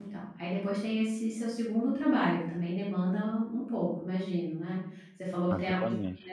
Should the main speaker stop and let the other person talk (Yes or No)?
No